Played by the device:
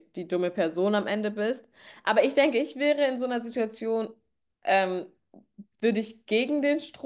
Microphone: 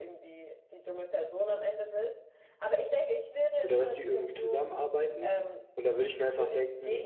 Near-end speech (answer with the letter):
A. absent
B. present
B